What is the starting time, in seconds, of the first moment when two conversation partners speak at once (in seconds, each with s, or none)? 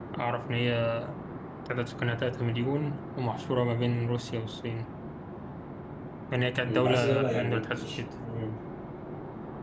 6.7 s